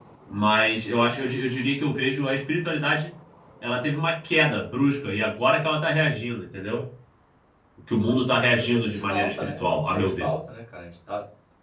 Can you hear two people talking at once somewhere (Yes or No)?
Yes